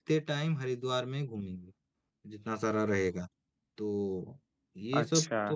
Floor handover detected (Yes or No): Yes